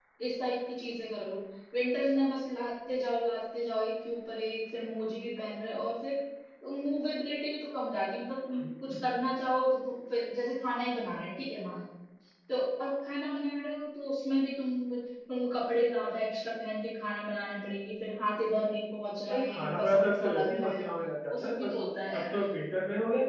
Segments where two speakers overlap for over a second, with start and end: 19.3-20.8

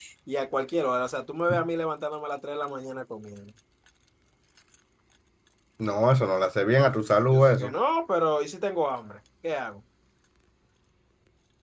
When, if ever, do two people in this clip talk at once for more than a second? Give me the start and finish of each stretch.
none

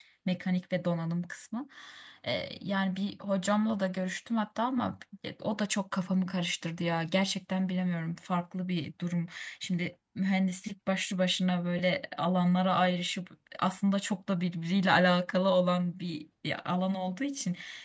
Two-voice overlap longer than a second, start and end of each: none

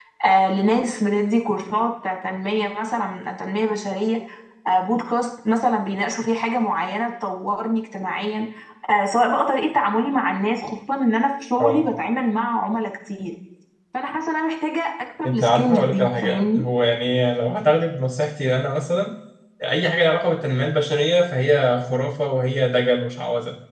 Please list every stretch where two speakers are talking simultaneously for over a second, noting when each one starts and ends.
15.3-16.6

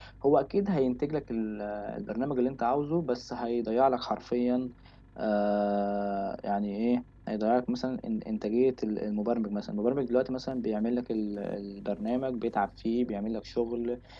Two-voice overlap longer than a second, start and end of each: none

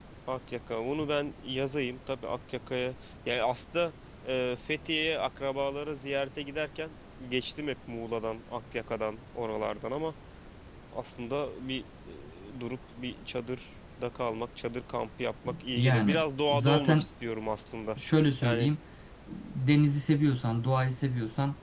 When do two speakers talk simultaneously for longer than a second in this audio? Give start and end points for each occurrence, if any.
15.8-17.1

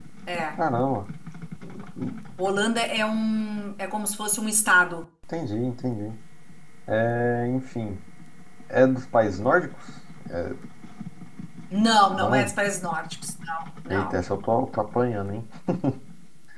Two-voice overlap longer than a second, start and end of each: none

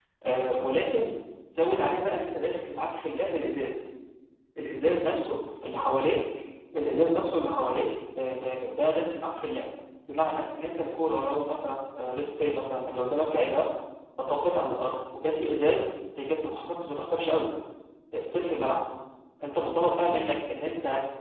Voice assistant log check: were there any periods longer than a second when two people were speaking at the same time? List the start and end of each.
none

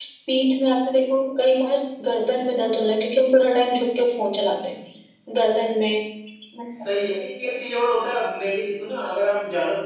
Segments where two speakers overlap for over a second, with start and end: none

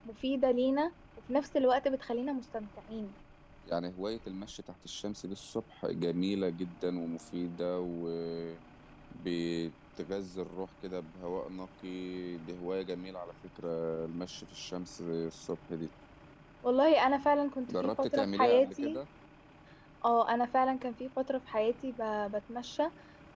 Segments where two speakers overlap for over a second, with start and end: 17.7-19.0

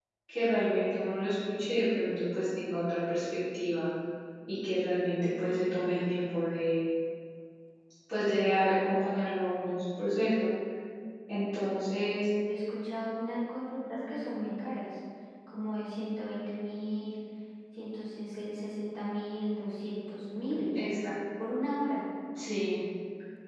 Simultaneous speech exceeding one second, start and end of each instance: none

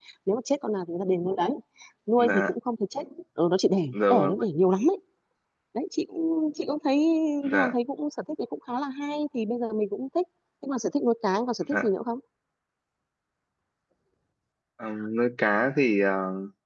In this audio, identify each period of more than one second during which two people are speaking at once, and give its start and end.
none

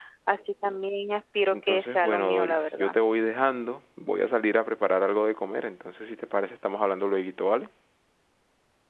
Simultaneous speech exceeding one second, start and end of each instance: 1.5-3.0

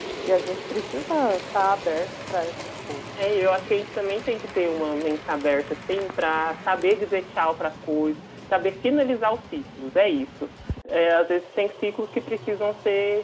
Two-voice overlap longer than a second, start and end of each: none

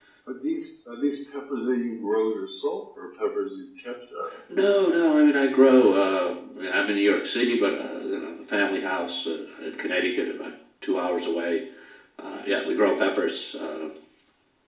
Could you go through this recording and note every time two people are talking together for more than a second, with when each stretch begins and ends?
none

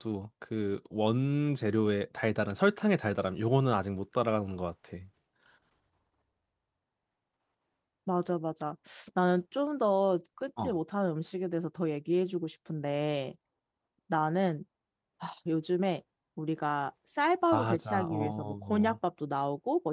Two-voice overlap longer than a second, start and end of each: 17.5-19.0

